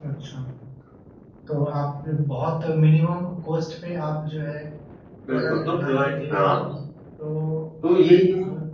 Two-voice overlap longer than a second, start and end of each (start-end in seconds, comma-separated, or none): 5.3-6.6